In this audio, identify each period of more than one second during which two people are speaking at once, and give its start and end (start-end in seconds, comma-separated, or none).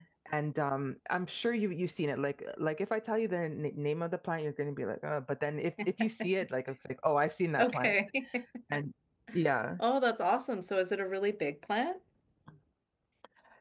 none